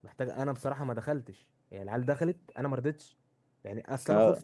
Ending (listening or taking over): listening